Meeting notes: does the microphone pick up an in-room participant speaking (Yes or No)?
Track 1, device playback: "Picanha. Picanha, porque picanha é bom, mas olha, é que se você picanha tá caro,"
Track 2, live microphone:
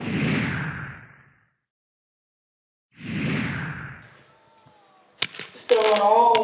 Yes